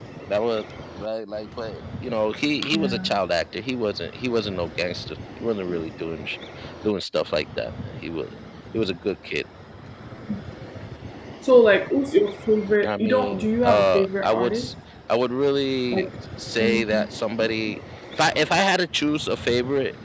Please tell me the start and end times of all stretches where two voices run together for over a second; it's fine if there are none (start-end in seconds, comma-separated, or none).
12.8-14.7